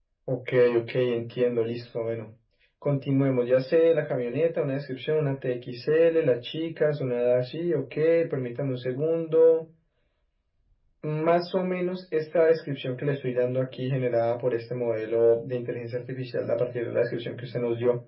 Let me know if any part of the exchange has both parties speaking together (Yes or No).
No